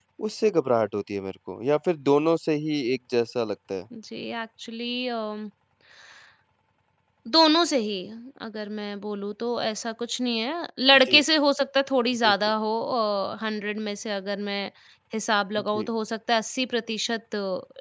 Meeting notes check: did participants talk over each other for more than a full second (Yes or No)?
No